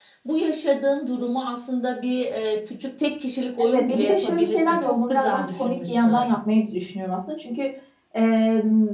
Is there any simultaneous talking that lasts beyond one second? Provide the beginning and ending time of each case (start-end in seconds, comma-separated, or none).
3.6-6.3